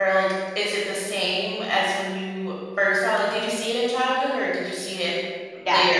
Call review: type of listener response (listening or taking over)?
taking over